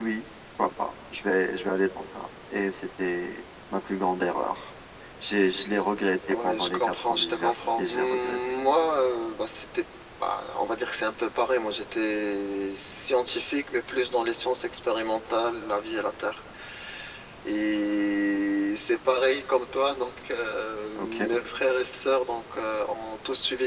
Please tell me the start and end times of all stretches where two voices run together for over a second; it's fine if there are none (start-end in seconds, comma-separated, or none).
6.3-8.4